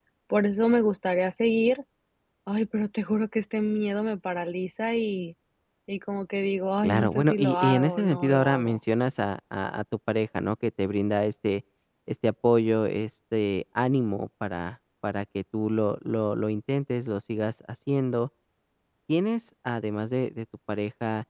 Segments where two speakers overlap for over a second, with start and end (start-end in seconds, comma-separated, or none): 6.8-8.8